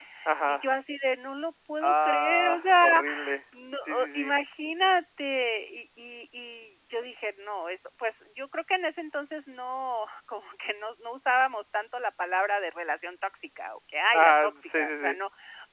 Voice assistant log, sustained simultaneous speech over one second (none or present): present